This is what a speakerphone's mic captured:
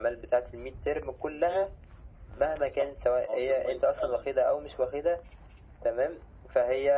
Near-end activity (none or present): none